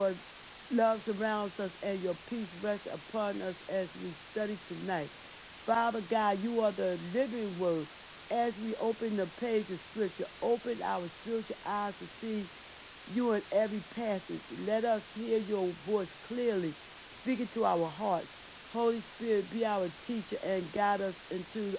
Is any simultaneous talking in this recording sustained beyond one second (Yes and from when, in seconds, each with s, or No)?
No